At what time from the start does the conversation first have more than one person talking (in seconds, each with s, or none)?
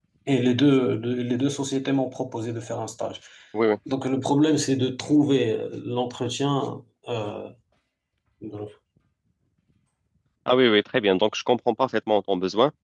none